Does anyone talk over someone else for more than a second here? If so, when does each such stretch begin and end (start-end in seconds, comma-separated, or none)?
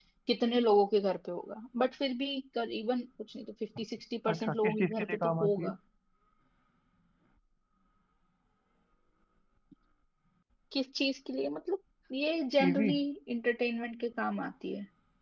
4.3-5.7